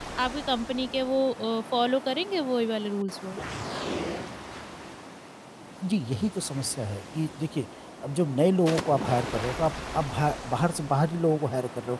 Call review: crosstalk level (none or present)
none